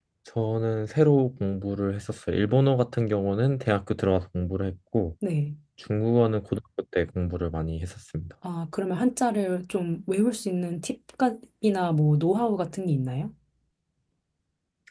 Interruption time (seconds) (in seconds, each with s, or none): none